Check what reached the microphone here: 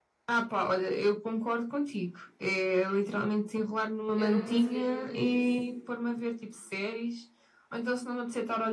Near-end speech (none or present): present